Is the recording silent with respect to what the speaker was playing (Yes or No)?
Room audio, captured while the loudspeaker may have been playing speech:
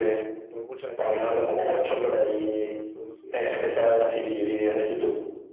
No